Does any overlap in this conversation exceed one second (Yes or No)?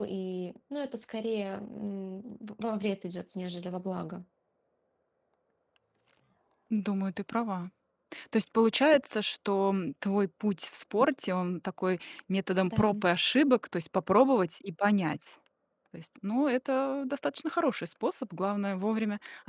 No